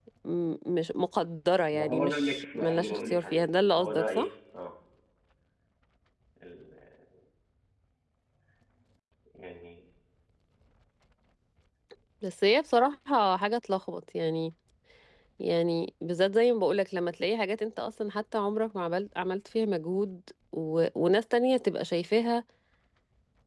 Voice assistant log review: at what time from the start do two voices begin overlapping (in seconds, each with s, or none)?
1.7 s